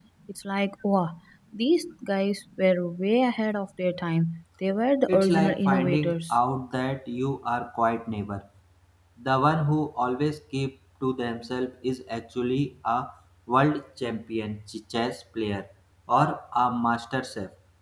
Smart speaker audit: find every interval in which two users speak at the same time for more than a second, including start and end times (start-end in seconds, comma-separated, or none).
5.1-6.3